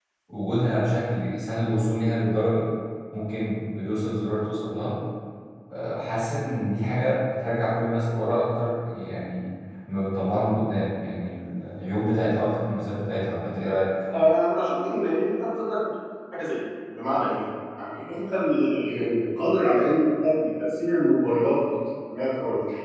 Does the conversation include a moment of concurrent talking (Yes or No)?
No